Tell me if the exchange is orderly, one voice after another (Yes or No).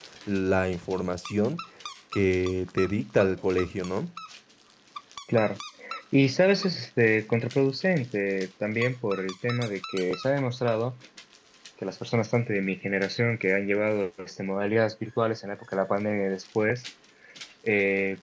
Yes